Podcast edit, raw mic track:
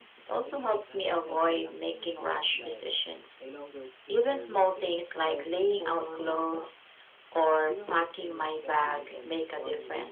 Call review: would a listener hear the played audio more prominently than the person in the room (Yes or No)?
Yes